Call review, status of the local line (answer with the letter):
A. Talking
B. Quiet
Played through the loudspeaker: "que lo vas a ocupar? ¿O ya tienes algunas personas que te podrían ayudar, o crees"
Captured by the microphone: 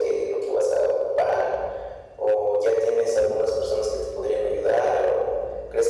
B